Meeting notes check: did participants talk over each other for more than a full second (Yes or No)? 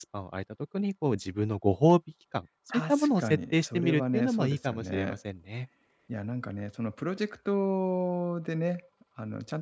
Yes